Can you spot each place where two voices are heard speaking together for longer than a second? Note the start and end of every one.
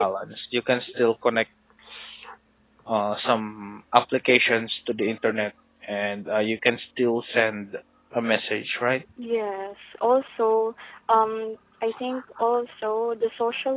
none

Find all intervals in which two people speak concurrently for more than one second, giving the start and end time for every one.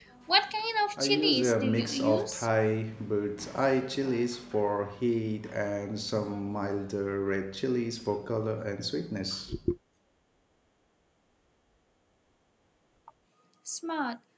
1.0-2.5

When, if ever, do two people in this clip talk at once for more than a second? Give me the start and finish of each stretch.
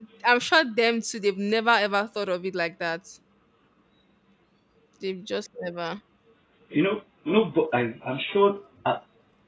none

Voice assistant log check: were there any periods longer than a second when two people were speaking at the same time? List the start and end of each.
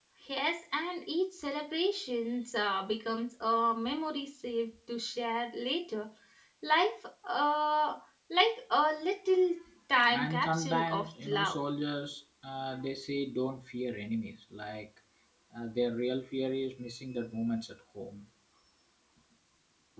10.1-11.6

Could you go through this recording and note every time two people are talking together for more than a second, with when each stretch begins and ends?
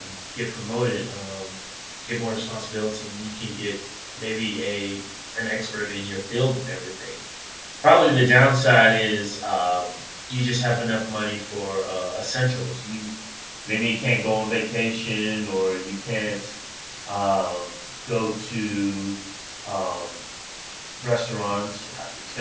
none

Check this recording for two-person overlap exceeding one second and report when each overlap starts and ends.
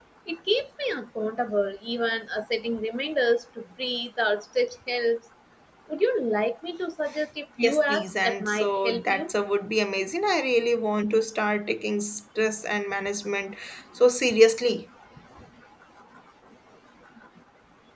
7.6-9.3

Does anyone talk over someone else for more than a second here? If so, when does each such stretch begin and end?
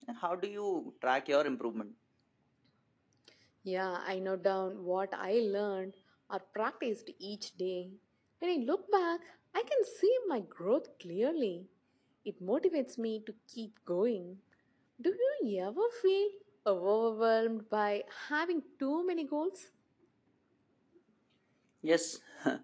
none

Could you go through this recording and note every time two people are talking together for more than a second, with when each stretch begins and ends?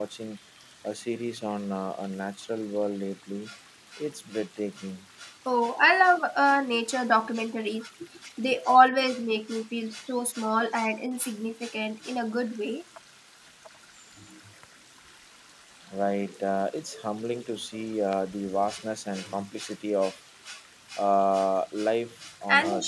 none

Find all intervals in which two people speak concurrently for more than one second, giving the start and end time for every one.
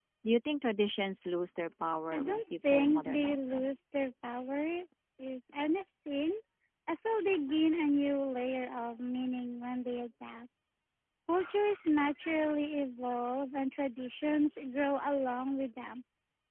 2.1-3.7

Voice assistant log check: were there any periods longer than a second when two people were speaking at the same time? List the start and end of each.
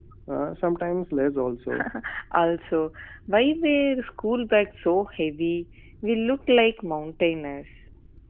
none

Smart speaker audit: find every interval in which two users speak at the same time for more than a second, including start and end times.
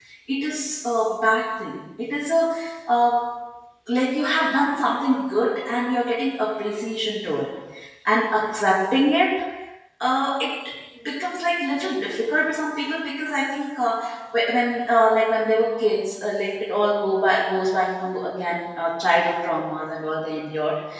none

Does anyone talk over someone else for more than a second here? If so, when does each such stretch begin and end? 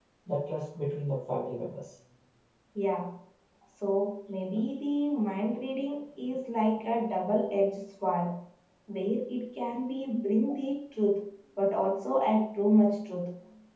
none

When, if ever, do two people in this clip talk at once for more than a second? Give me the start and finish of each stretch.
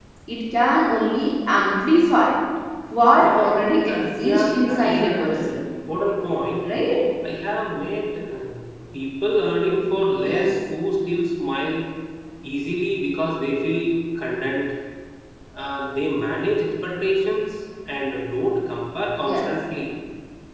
3.9-5.6

